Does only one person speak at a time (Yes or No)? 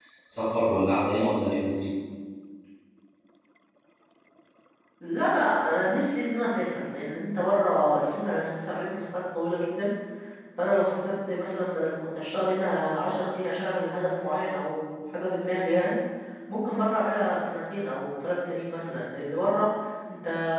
Yes